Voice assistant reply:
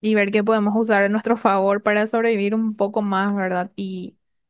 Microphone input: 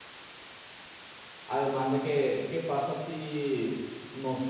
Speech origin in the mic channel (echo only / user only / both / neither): user only